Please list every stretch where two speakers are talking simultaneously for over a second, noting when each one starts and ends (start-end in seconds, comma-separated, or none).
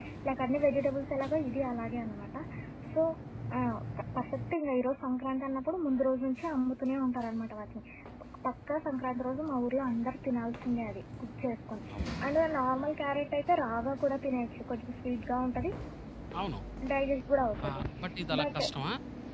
none